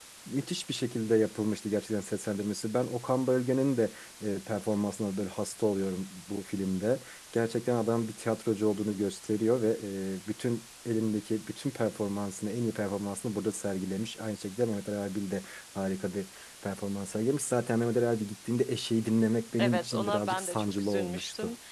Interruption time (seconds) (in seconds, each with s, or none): 19.6 s